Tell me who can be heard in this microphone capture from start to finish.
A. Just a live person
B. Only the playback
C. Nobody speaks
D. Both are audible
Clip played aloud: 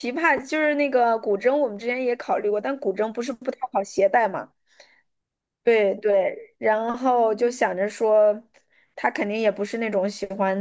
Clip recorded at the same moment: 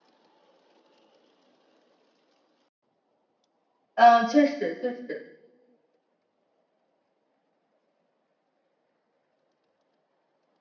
A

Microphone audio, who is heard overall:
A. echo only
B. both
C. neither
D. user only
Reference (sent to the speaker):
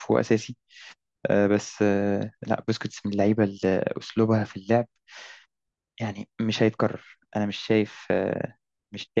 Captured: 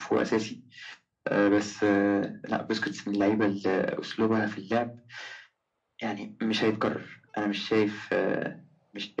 A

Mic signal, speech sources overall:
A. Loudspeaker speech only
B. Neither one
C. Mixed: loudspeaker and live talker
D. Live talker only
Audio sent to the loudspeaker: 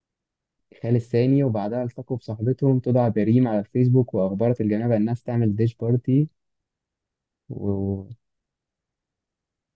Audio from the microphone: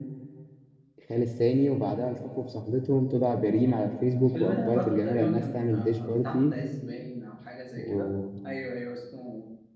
C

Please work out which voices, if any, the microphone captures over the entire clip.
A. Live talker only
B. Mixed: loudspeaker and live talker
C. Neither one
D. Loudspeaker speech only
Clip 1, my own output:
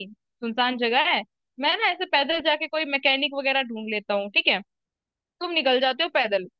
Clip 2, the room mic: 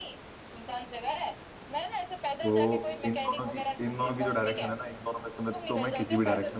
B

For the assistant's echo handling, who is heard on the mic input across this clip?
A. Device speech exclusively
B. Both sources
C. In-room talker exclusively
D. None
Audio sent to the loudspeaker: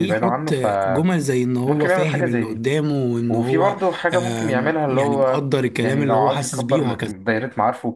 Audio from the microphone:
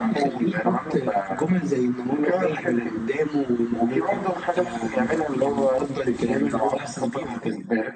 A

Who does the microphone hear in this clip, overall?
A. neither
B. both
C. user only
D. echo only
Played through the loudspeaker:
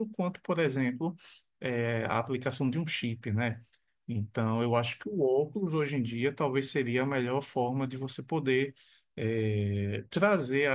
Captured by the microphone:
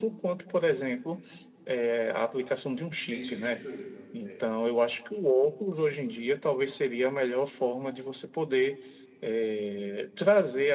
B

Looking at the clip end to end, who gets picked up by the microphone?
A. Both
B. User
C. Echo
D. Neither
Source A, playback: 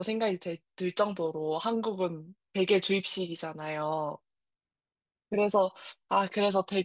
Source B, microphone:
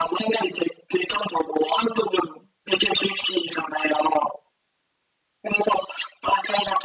C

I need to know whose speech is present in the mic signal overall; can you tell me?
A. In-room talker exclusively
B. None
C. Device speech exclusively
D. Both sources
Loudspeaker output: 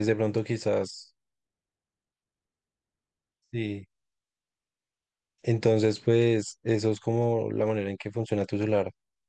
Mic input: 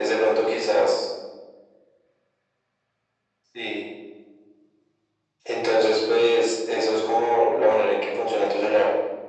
C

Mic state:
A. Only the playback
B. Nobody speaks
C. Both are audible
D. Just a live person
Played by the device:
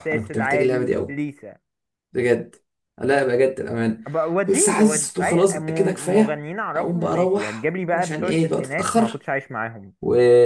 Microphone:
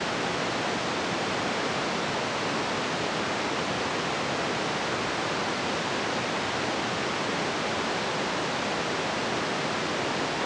B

